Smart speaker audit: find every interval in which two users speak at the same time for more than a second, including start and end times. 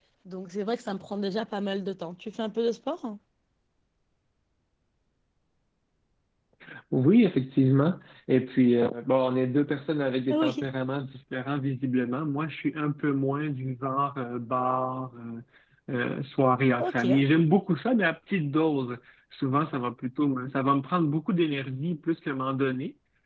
none

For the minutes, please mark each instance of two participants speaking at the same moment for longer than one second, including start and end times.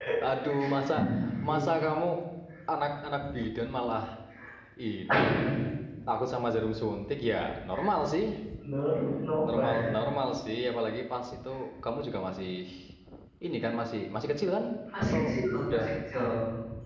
none

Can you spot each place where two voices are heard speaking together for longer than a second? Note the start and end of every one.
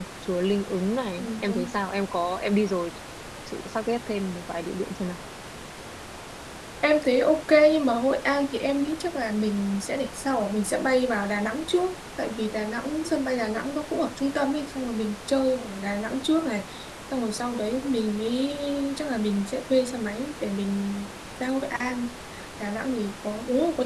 none

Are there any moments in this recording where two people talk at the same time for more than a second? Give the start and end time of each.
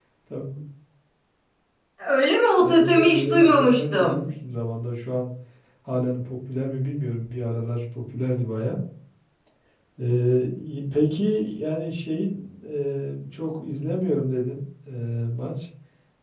2.6-4.2

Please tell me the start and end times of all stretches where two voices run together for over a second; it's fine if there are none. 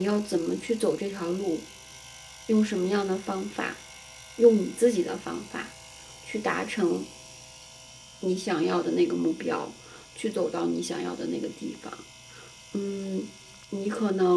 none

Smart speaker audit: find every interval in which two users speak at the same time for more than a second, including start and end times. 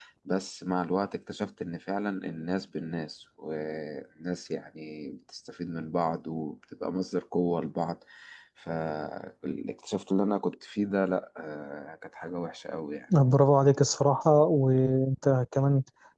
none

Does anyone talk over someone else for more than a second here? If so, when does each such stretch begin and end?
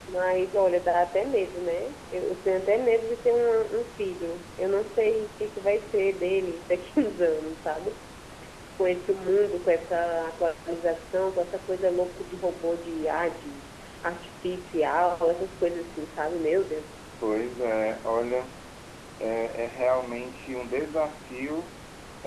none

